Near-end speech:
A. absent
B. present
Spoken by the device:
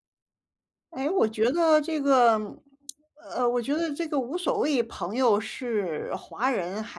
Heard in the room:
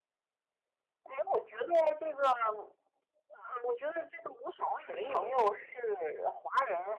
B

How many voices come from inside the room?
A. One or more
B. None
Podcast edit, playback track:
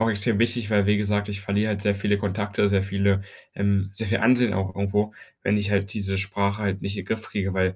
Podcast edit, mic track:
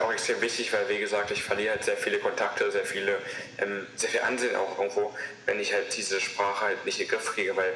B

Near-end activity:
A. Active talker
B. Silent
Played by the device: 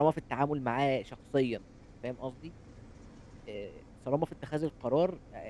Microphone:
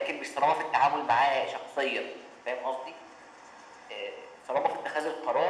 B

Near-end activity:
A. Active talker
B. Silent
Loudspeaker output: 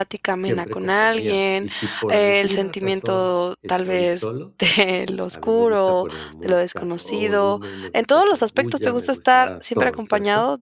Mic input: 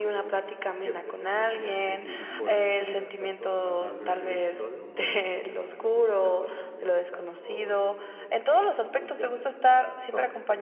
A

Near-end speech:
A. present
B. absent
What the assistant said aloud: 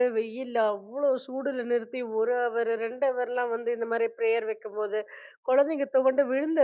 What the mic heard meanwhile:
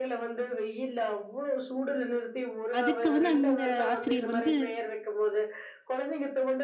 A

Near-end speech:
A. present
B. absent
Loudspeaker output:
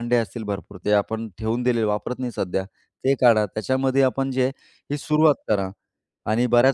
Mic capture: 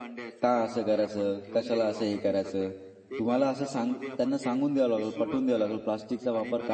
A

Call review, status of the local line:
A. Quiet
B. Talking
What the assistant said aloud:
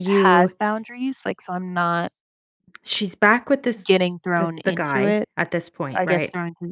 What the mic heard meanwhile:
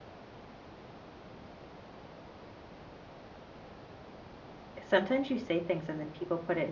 B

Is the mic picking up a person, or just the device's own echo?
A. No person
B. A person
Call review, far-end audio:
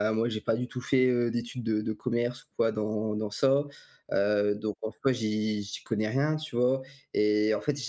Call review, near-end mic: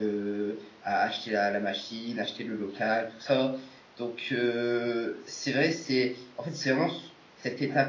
B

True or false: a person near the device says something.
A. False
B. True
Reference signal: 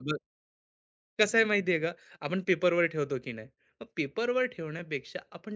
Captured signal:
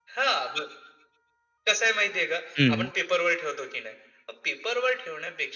B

